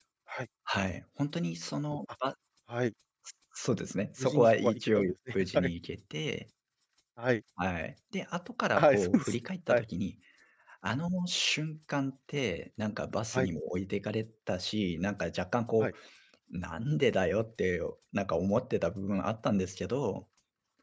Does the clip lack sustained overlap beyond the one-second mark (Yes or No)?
No